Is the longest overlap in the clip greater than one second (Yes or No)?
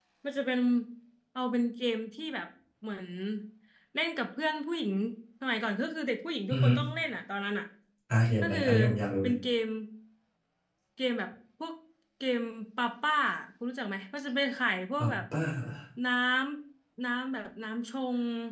No